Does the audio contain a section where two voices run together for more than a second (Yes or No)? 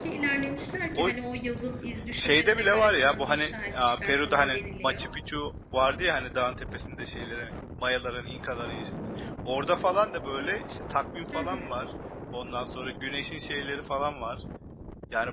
Yes